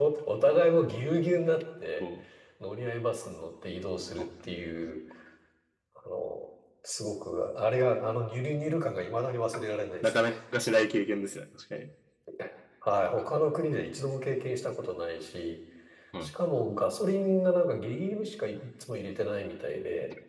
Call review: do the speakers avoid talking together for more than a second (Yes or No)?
Yes